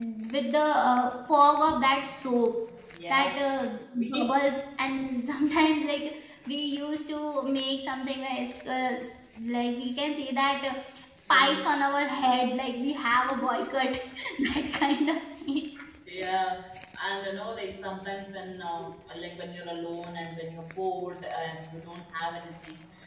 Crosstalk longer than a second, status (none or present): none